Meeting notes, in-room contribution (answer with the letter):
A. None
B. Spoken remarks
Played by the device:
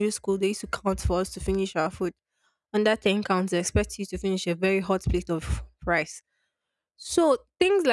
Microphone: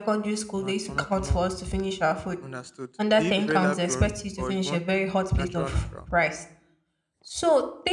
B